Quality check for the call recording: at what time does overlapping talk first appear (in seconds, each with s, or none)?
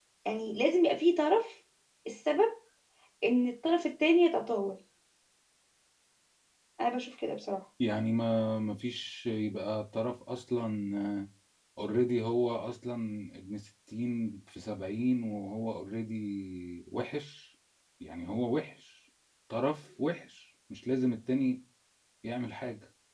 none